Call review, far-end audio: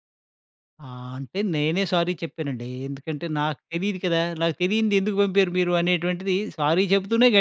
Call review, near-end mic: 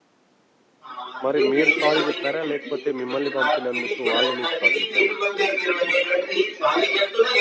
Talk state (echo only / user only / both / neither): both